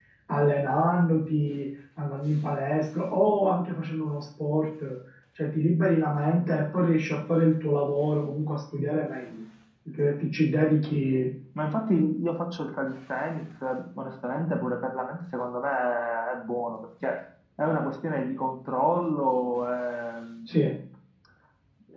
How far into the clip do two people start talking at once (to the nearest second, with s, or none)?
none